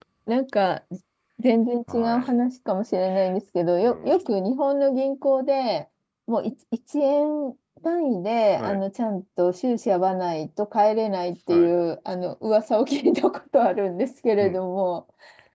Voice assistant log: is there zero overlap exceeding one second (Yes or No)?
Yes